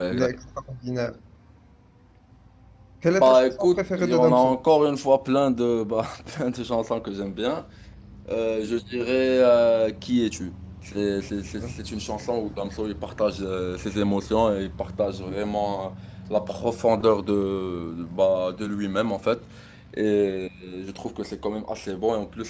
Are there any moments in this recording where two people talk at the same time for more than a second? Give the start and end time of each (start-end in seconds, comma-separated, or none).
3.0-4.6